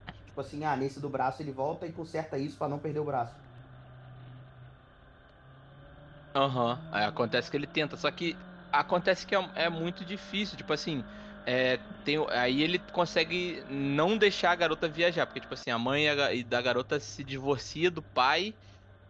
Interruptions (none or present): none